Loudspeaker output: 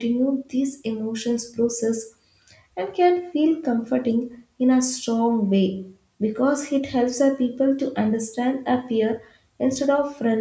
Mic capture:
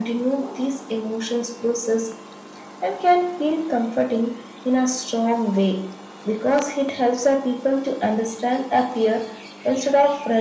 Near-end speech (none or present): none